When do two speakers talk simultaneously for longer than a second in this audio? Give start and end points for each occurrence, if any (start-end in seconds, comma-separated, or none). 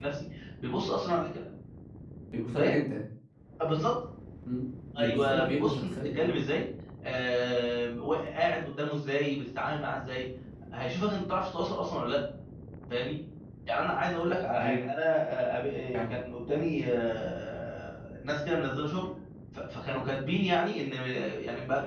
5.0-6.3